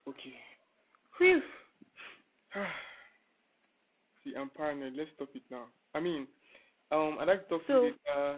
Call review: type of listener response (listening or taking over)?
listening